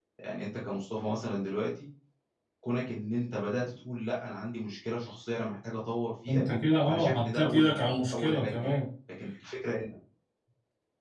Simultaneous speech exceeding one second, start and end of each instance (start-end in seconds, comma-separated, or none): 6.9-8.7